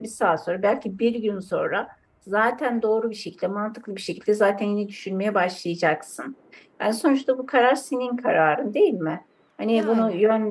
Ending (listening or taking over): listening